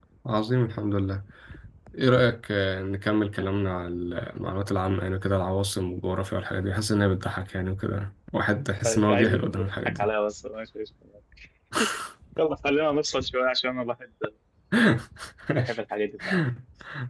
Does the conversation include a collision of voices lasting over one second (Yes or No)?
Yes